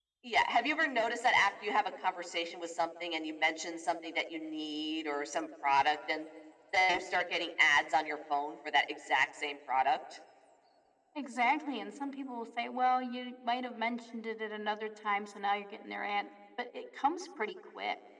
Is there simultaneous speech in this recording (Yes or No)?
No